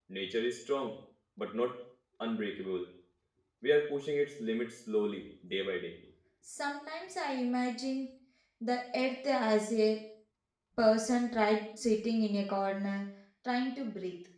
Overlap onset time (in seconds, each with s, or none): none